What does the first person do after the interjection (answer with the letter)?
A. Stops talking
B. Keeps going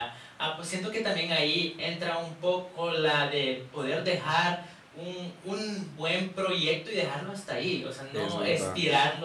B